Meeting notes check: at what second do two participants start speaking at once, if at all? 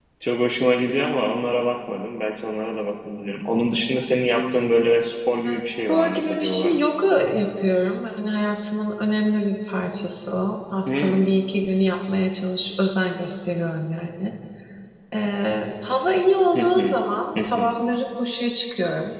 5.4 s

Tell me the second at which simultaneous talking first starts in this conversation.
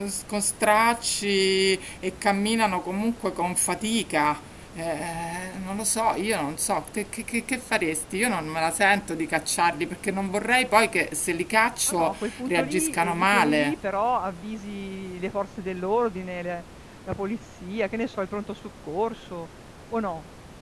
11.9 s

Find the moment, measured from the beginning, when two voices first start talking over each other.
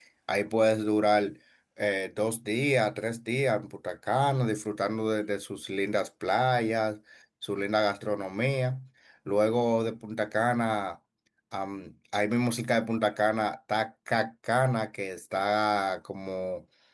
none

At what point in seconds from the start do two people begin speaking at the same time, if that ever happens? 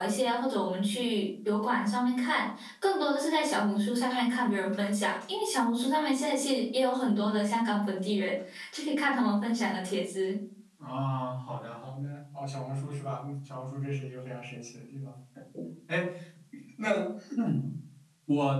none

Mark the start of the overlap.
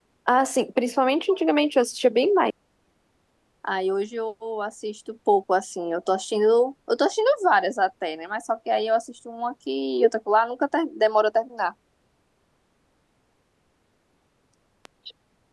none

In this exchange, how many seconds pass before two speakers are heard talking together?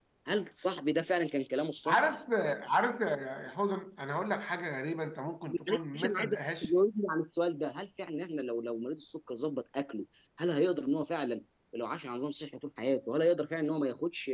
5.5 s

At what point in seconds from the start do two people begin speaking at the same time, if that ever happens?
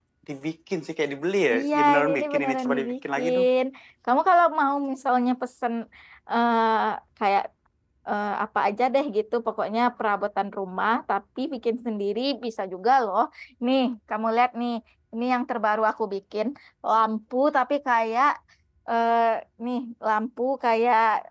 1.5 s

